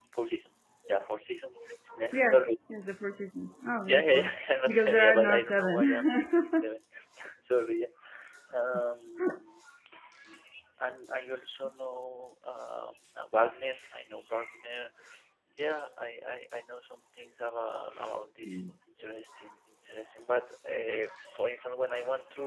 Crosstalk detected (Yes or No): Yes